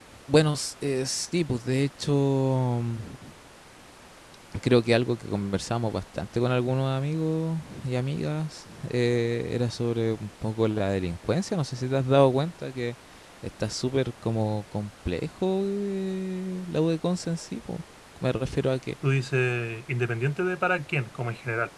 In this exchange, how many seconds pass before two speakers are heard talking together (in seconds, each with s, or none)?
none